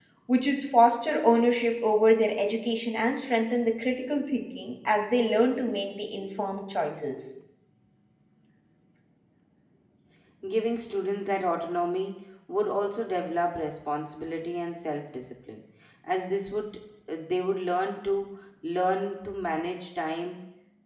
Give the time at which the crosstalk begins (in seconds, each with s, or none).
none